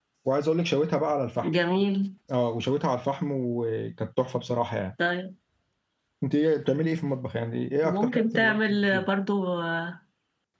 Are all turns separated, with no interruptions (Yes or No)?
No